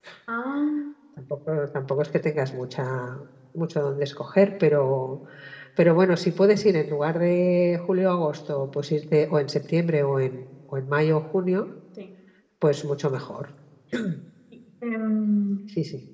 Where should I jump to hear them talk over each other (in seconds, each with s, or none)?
none